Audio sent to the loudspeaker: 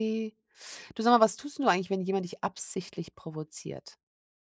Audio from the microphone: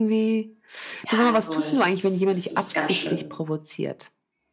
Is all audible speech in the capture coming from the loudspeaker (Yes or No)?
No